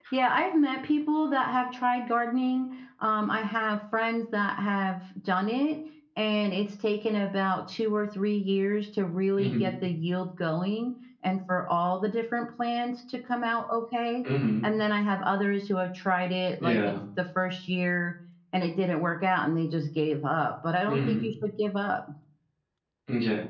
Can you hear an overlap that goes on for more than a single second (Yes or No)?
No